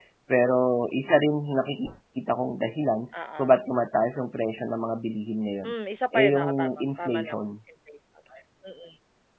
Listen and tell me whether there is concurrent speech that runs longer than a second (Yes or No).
Yes